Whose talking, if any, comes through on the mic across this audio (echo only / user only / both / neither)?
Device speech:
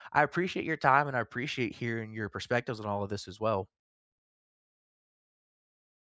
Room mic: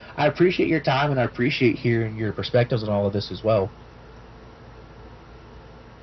echo only